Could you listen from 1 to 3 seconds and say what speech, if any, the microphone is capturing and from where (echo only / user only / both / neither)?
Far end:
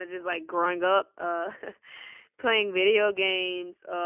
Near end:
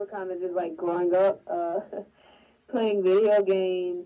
echo only